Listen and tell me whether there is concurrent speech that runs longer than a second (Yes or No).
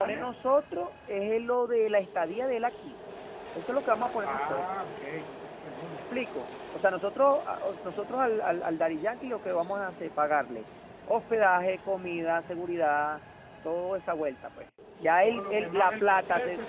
Yes